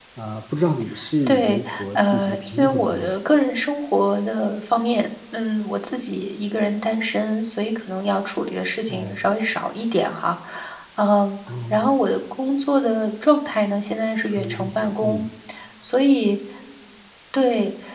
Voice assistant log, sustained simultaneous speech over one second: present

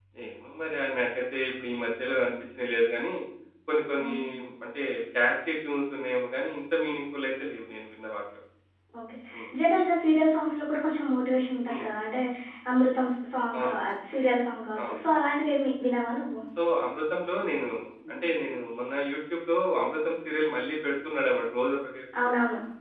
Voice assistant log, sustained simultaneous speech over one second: none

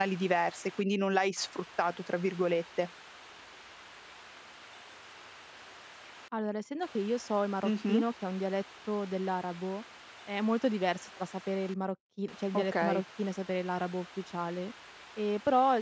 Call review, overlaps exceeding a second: none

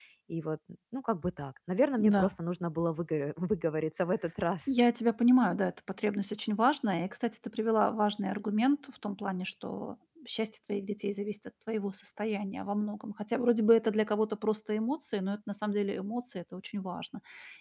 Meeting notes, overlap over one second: none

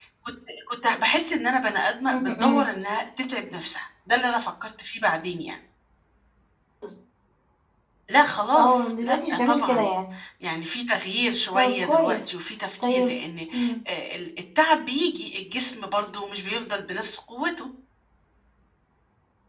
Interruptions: present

